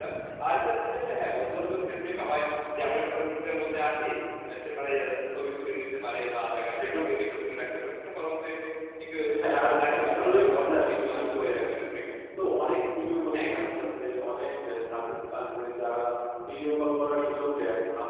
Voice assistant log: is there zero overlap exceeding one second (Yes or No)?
No